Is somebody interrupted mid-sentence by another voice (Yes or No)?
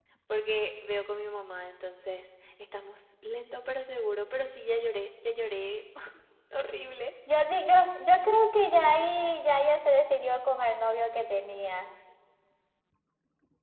No